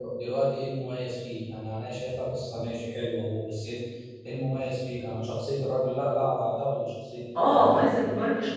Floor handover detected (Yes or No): Yes